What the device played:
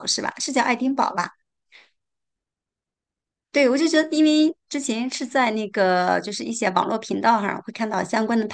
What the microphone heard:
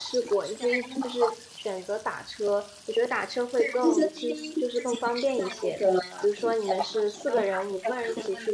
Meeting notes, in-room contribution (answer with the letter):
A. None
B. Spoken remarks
B